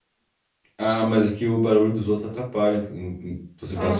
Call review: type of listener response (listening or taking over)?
taking over